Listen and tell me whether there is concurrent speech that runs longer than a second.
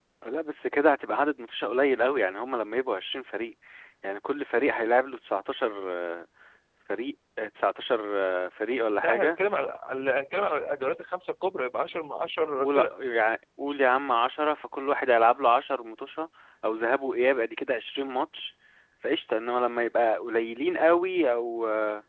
No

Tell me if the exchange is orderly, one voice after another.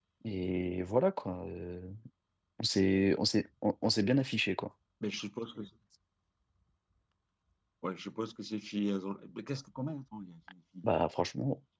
Yes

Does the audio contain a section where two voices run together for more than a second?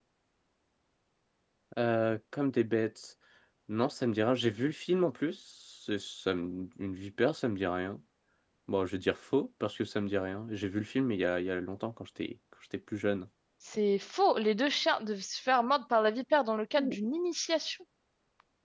No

